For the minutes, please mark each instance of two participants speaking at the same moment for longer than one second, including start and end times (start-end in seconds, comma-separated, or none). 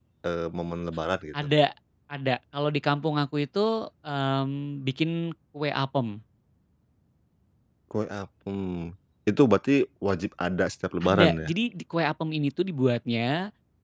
none